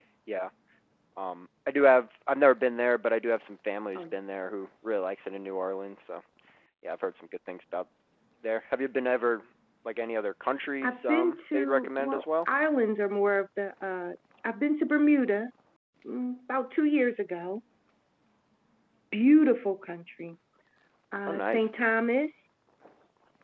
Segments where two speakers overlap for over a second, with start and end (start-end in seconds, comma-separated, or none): 10.8-12.2